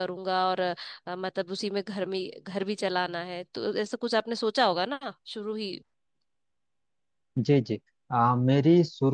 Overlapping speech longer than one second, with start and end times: none

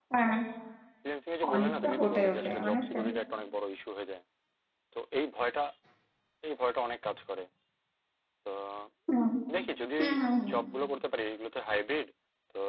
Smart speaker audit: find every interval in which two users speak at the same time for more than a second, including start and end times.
1.5-3.0

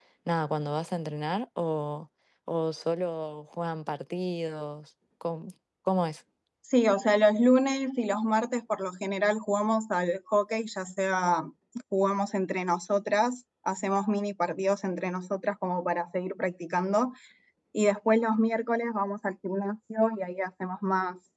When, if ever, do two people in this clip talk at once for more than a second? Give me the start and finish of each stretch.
none

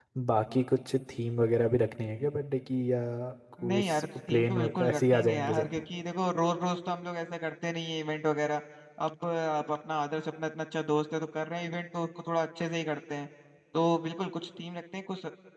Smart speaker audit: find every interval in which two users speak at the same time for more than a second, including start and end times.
3.7-5.7

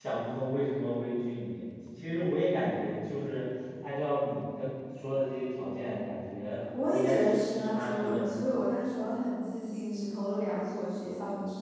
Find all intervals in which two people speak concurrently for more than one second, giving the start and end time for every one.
6.9-8.4

